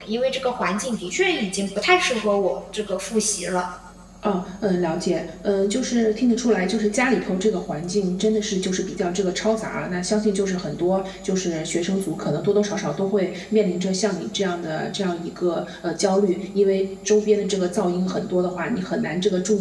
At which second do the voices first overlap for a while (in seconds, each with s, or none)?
none